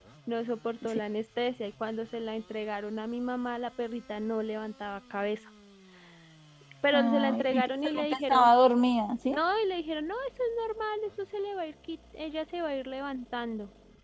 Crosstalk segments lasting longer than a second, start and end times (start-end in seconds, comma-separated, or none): 6.9-8.5